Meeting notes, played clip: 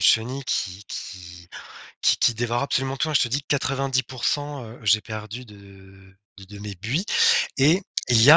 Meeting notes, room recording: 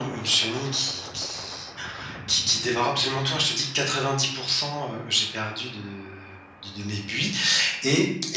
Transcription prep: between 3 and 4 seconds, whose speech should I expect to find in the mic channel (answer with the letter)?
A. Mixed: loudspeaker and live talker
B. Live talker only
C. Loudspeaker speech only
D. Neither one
C